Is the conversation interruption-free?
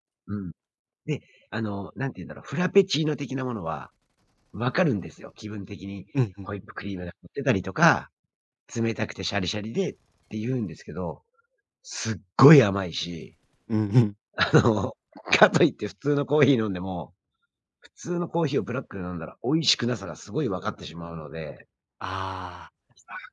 Yes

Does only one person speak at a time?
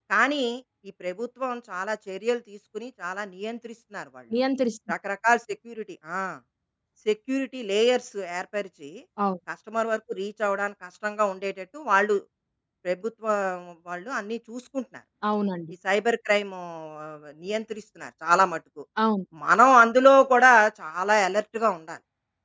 Yes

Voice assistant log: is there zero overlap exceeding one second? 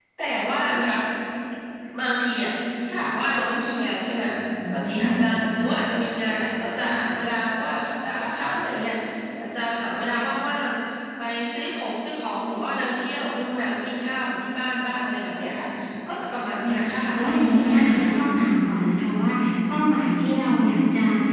No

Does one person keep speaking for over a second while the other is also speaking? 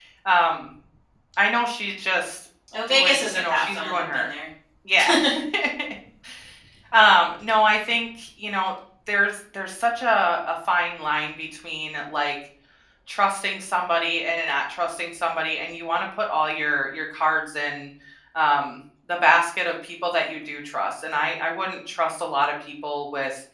Yes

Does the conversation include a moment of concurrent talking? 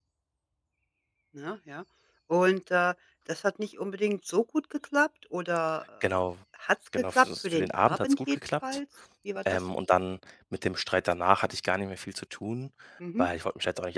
Yes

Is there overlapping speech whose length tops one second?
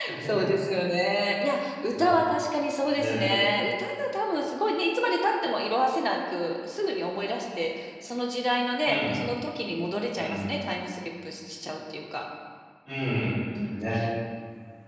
No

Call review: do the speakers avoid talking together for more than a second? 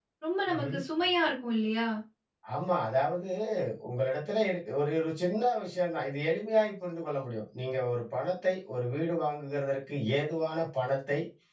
Yes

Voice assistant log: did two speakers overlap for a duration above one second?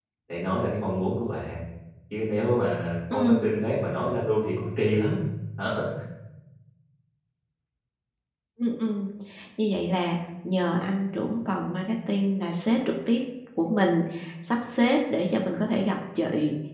No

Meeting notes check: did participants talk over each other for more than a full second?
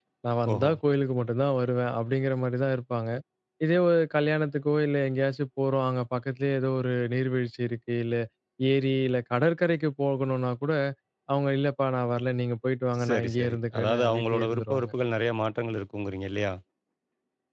Yes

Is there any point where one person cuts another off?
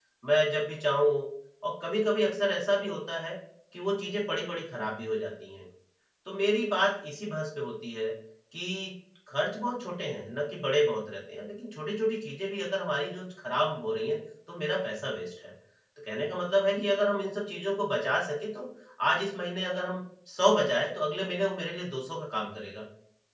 No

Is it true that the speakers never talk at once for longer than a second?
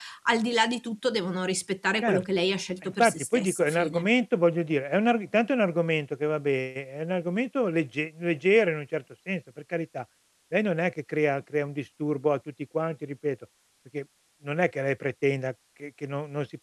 No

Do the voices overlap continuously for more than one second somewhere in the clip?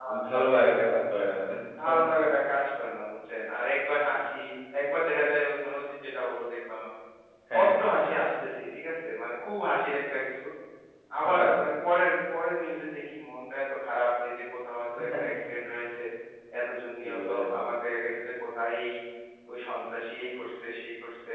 No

